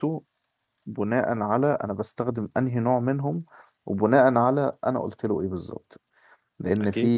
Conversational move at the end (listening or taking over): listening